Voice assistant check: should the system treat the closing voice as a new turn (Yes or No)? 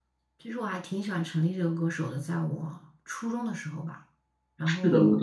Yes